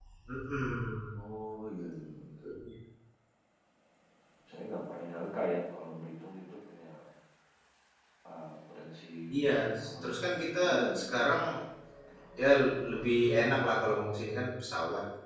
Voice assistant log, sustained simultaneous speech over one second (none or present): present